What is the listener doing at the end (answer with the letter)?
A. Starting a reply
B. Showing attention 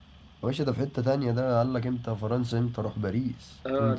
A